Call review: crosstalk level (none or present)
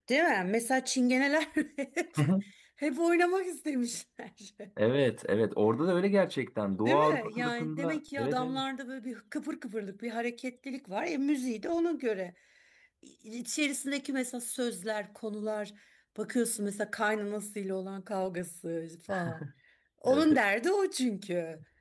present